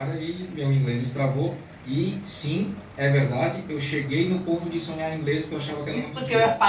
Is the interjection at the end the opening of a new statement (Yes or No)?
Yes